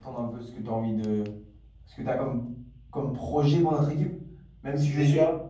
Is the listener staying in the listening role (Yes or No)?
Yes